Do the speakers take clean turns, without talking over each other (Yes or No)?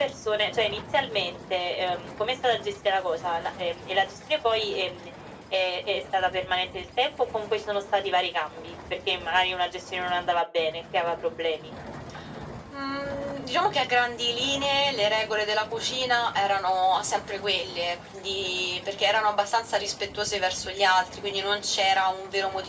Yes